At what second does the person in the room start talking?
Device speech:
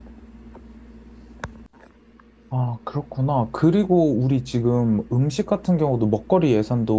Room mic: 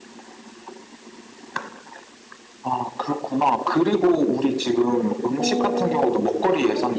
5.4 s

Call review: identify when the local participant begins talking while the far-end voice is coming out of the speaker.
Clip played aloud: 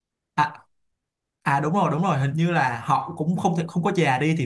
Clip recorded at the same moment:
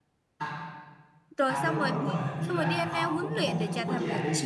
1.4 s

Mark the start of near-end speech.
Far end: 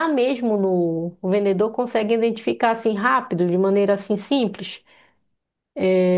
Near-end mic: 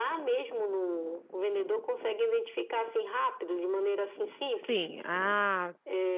4.5 s

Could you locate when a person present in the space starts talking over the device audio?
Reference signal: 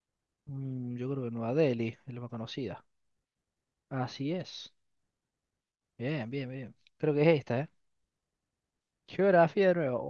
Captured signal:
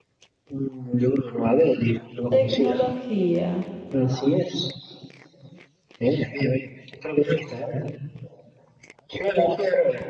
2.3 s

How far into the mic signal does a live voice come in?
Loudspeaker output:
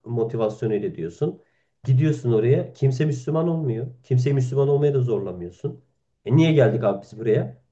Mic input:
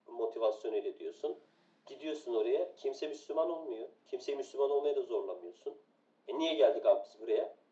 none

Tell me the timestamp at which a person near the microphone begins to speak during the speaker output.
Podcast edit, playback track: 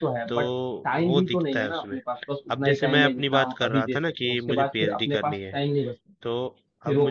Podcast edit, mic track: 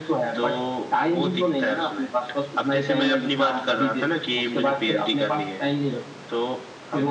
none

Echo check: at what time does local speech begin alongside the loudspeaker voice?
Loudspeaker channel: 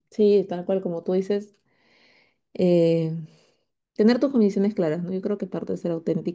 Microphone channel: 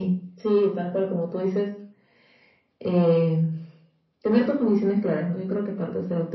none

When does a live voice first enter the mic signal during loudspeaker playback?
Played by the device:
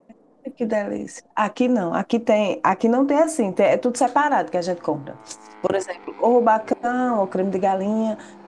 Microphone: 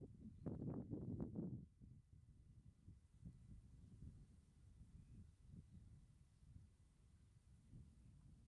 none

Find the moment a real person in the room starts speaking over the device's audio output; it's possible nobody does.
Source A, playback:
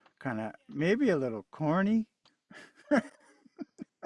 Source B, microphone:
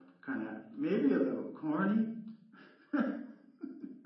none

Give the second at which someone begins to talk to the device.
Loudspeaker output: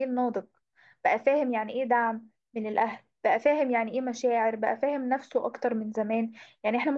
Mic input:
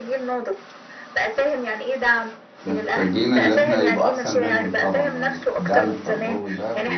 2.6 s

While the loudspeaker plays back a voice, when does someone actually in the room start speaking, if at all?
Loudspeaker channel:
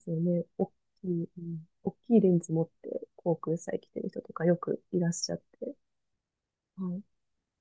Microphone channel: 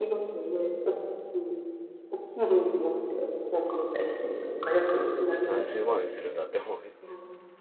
5.4 s

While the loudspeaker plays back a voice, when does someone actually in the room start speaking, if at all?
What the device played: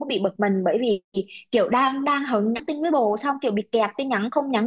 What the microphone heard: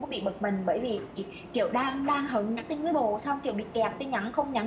none

